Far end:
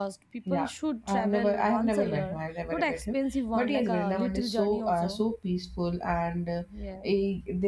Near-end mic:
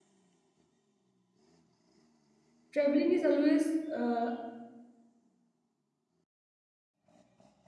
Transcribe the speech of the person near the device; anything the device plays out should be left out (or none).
traveling is always uh,